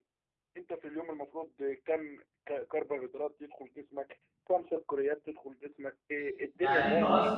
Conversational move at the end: taking over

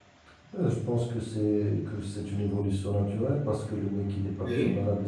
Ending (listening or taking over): listening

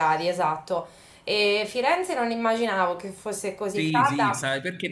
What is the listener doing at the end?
taking over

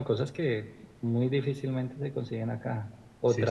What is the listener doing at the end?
listening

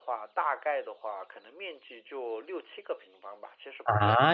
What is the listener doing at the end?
taking over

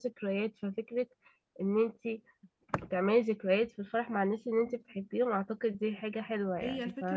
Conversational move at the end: taking over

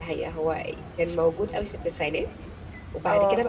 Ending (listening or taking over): listening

